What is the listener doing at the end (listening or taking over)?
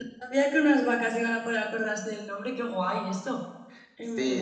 taking over